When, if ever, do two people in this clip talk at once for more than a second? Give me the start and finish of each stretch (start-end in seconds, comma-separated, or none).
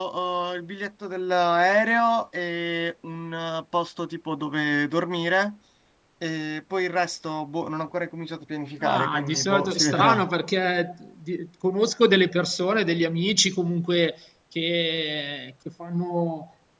8.8-10.2